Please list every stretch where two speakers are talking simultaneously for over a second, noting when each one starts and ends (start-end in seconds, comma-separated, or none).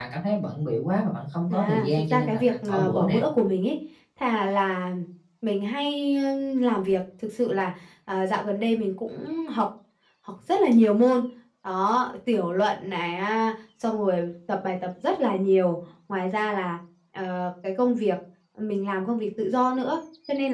1.5-3.2